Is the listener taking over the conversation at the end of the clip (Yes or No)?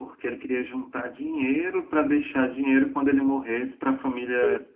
Yes